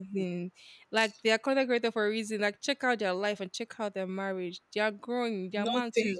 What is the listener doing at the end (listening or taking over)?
listening